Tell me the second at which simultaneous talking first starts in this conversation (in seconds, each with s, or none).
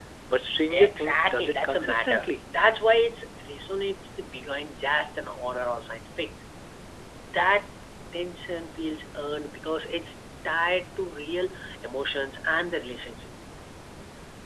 0.7 s